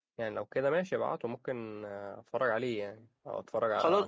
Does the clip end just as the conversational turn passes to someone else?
Yes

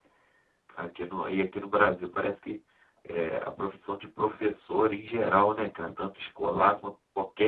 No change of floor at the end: Yes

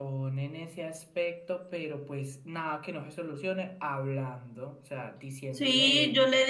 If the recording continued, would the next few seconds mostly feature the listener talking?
Yes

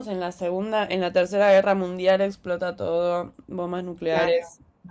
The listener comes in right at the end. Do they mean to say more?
Yes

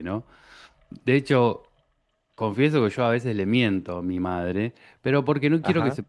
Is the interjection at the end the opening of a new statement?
No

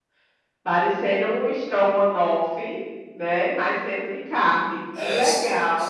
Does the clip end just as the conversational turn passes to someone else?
Yes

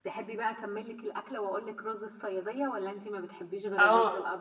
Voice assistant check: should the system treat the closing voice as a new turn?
Yes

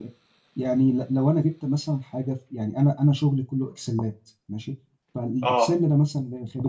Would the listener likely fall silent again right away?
Yes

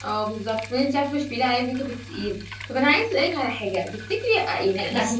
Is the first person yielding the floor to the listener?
No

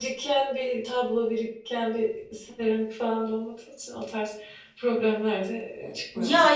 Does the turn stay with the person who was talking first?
No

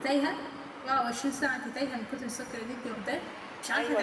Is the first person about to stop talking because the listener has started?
Yes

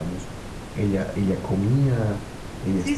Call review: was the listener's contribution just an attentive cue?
No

